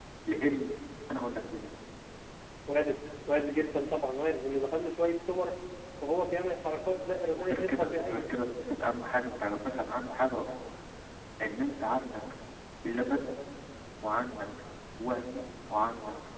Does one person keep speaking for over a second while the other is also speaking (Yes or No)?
Yes